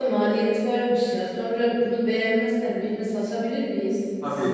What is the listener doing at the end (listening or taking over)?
taking over